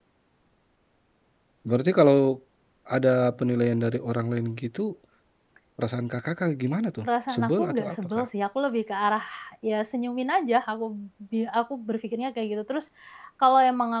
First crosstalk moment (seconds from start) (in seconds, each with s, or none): 7.0 s